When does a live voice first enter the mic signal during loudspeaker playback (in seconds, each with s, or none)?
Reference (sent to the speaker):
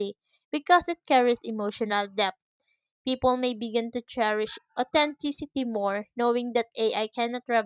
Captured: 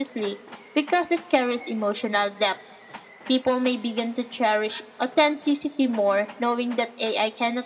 none